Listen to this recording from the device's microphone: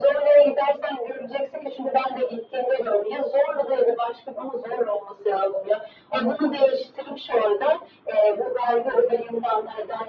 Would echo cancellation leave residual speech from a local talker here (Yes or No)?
No